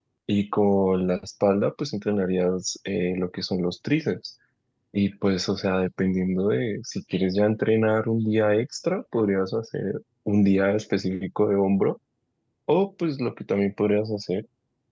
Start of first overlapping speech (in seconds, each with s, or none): none